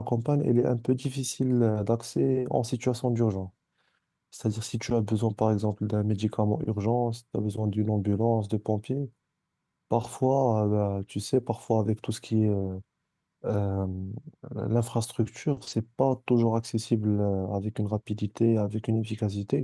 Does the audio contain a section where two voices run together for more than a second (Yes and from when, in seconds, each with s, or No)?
No